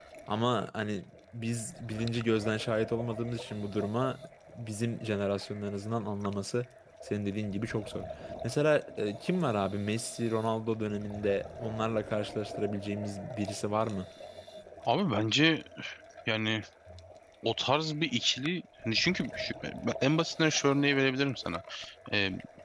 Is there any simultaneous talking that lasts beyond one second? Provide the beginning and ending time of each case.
none

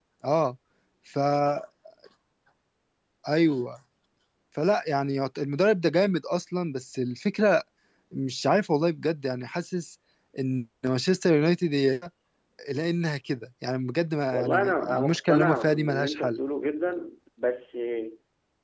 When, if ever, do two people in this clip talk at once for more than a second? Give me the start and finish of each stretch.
14.3-16.4

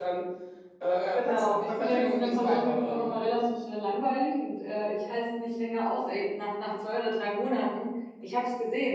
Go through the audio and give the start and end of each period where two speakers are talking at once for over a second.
1.1-3.2

